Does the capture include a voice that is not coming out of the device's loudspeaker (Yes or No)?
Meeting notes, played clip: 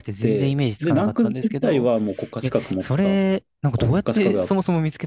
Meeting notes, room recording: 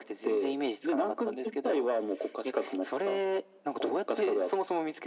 No